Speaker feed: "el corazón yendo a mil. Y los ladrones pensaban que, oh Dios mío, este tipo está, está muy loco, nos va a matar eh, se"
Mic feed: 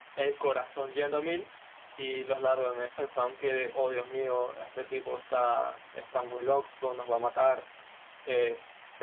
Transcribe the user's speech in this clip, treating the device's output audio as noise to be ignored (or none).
none